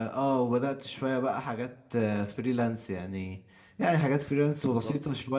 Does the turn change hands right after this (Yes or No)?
No